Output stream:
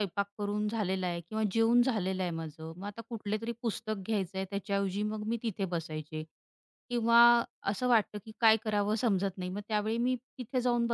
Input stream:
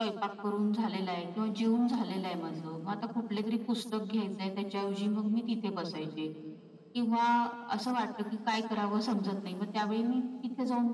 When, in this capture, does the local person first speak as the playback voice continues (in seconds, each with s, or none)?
none